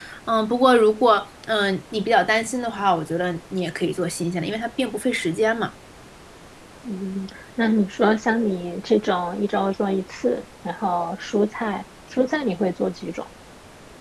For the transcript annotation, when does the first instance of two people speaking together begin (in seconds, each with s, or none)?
none